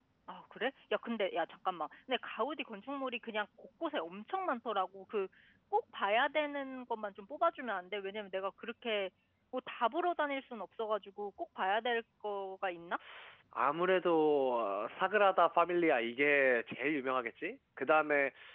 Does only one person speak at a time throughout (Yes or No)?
Yes